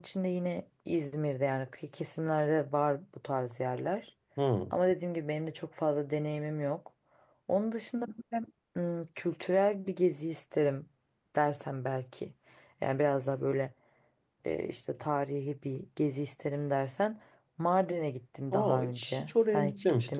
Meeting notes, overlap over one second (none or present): present